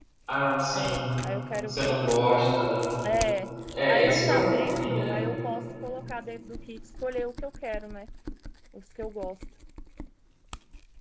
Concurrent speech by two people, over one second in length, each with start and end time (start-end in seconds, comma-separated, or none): 3.9-5.2